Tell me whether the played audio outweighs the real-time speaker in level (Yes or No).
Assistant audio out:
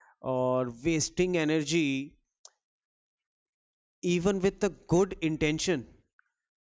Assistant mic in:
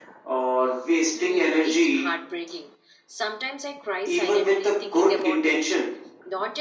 Yes